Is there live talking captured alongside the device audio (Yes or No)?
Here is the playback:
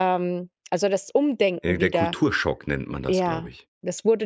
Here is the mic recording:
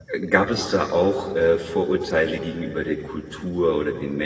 Yes